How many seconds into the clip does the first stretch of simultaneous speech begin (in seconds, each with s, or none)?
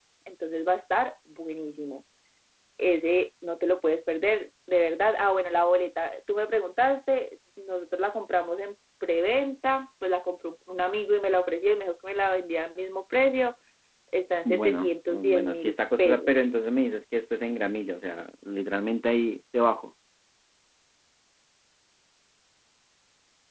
14.4 s